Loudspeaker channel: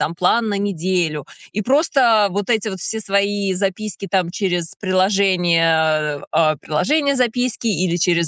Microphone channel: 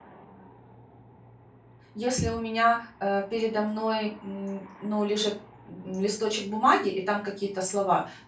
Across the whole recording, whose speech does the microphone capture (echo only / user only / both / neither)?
user only